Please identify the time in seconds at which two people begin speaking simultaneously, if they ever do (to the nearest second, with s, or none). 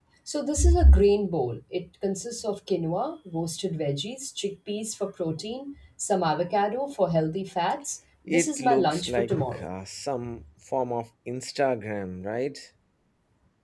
8 s